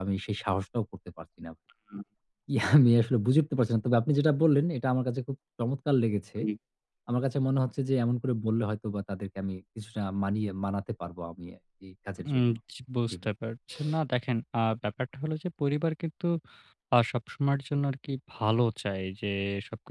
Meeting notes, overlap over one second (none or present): none